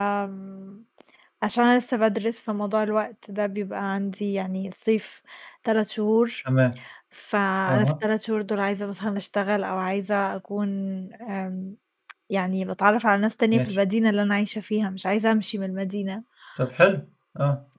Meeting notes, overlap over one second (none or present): none